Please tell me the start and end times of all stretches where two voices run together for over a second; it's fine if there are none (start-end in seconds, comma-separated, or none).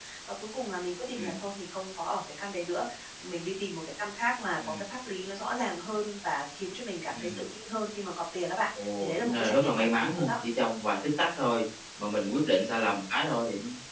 9.0-10.3